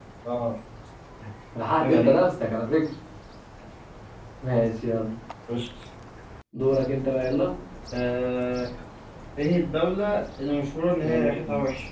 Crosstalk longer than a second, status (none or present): none